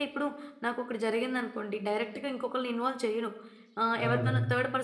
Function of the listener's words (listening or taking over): listening